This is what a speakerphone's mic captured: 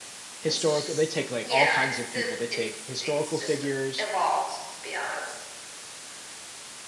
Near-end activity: present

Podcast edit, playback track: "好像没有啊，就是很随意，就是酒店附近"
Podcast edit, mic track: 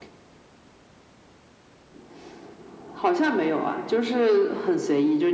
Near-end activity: none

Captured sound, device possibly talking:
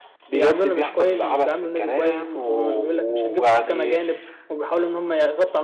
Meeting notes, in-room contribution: present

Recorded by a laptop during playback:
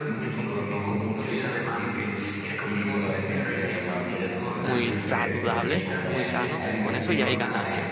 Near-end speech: present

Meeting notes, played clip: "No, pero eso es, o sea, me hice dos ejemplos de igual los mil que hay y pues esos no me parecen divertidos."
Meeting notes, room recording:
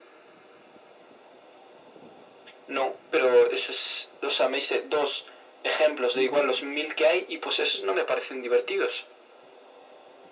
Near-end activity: present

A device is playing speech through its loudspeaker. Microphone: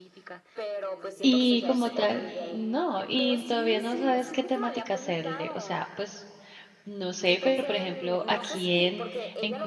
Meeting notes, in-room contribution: present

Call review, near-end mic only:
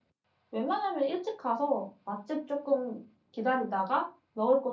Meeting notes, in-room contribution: present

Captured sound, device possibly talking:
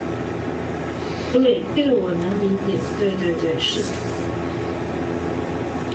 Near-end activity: present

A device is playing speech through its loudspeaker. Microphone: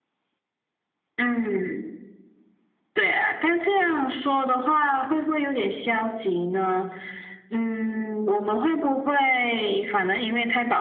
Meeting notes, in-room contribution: none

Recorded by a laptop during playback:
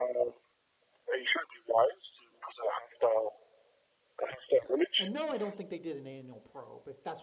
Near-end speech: present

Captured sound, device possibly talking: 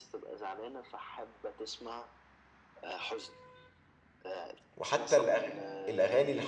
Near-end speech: present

